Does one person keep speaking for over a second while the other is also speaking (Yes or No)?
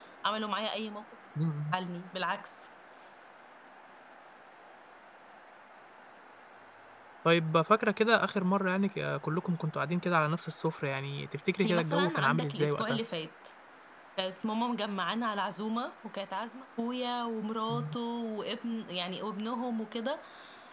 Yes